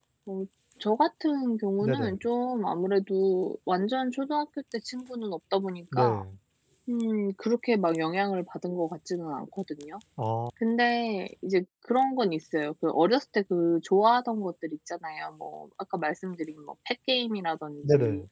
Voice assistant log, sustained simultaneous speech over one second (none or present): none